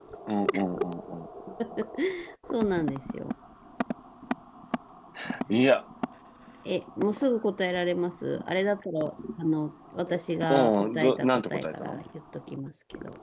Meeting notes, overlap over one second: present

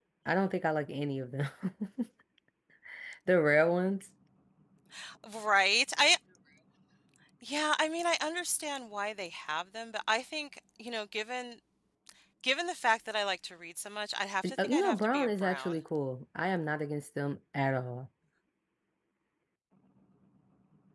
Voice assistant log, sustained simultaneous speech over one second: present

